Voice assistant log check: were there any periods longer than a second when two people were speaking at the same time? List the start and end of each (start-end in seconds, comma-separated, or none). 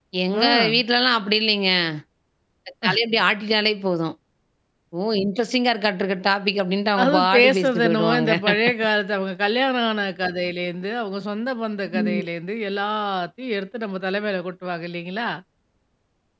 7.0-8.3